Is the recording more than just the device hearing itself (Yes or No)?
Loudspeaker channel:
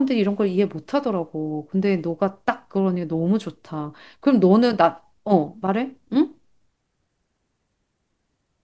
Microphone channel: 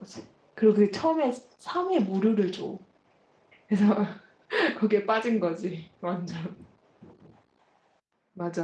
Yes